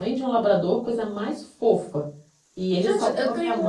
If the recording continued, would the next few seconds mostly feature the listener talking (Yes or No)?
Yes